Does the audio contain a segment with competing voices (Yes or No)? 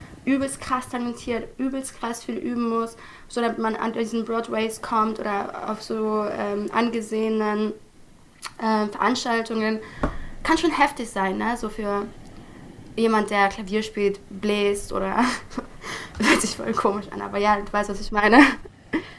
No